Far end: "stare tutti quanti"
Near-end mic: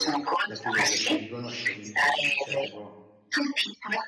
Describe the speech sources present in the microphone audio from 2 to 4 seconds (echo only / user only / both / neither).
both